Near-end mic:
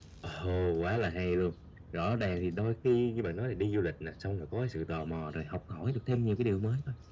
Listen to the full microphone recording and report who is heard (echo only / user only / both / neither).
echo only